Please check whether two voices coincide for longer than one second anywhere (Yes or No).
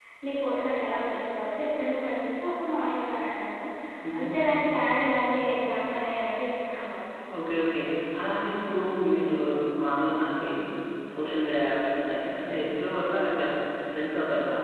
No